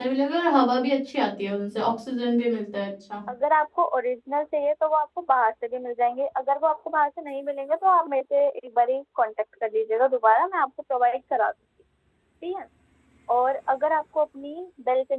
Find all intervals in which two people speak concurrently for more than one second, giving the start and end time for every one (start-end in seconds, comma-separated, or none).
none